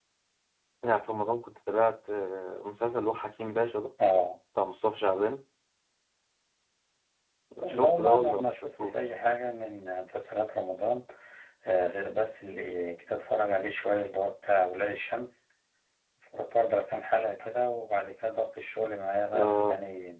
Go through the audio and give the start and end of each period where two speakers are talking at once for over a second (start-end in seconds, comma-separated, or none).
7.7-9.0